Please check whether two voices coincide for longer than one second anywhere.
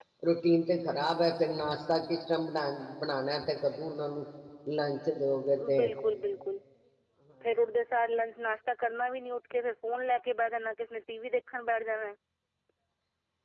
No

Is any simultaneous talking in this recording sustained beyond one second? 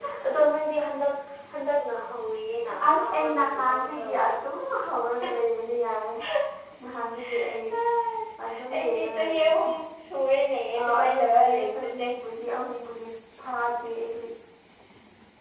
Yes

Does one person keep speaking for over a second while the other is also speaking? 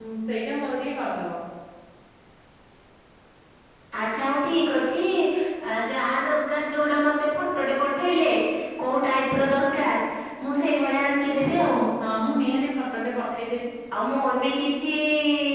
No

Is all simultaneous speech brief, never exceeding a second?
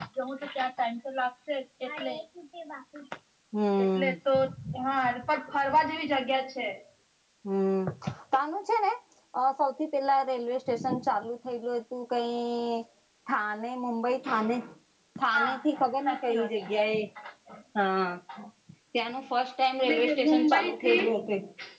No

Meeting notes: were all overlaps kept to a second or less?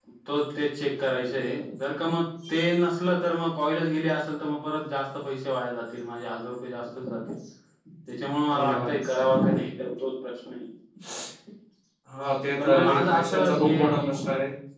No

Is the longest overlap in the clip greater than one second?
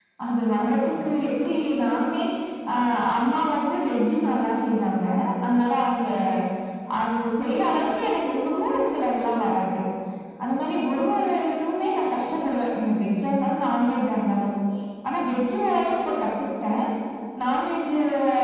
No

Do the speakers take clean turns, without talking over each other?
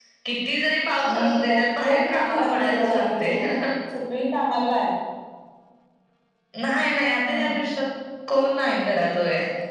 No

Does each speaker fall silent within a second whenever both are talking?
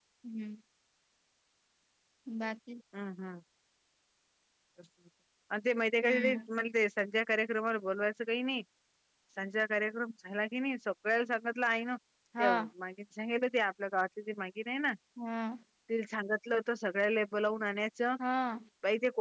Yes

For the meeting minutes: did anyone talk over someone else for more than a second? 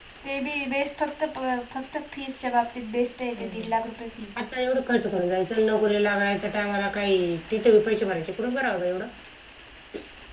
No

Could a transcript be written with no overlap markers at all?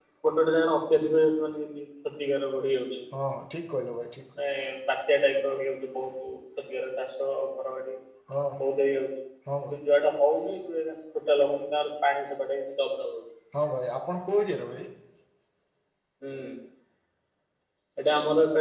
Yes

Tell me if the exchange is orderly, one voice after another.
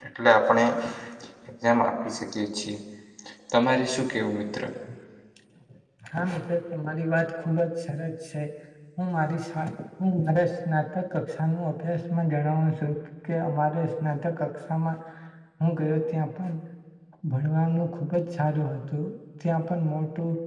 Yes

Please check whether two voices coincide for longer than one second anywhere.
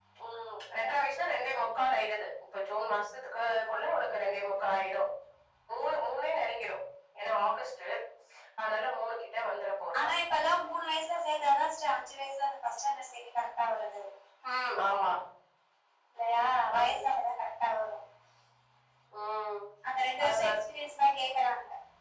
No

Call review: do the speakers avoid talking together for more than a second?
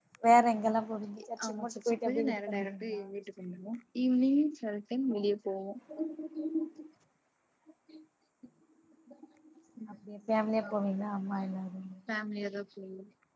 No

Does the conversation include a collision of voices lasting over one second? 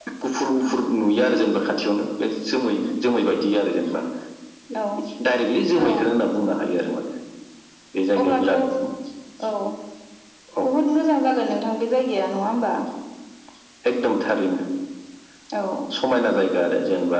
No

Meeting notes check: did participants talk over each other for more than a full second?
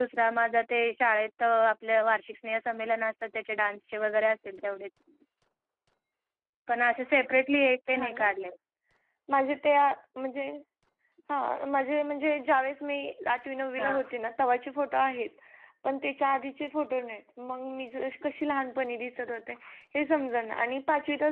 No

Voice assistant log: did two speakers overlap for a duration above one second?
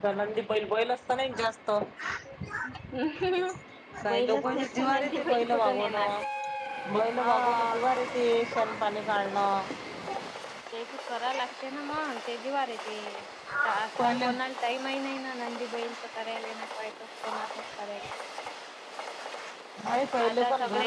Yes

